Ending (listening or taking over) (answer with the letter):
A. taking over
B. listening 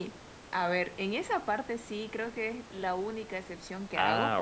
B